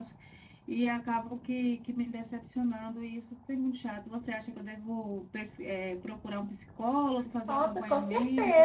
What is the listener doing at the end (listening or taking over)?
taking over